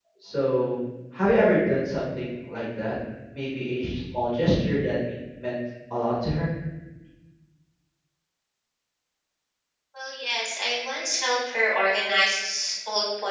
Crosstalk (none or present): none